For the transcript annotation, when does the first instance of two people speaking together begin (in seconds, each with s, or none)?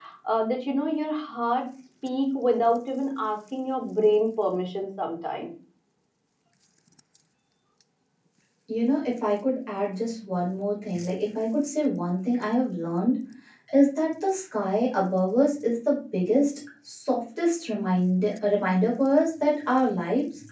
none